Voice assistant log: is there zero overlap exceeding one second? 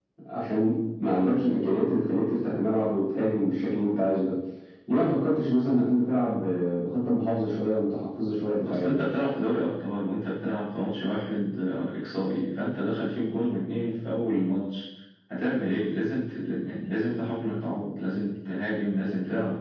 Yes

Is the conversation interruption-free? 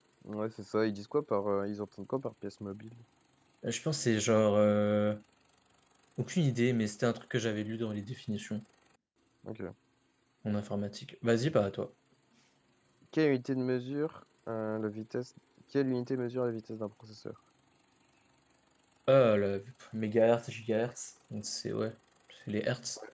Yes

